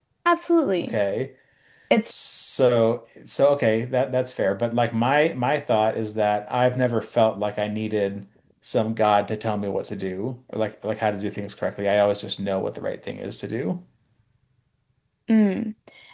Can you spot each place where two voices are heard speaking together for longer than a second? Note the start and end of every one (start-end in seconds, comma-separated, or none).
none